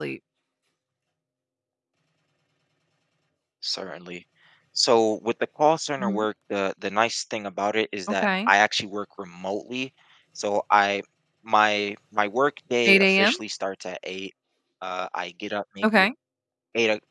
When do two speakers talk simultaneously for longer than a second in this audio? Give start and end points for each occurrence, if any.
none

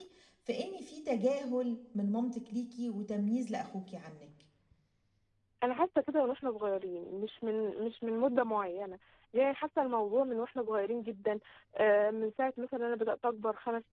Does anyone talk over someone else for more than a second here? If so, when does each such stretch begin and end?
none

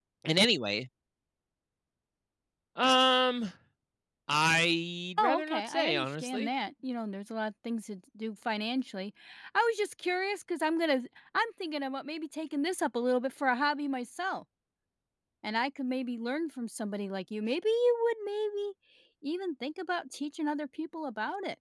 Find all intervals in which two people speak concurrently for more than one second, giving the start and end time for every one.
5.2-6.5

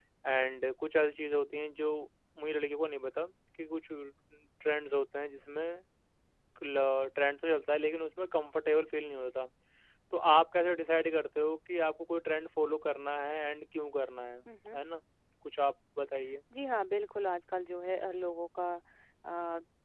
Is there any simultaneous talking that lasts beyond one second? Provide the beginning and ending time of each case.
none

